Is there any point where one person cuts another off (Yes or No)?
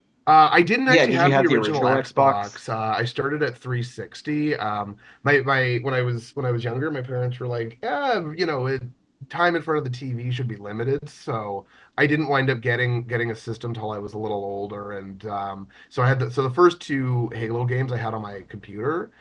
Yes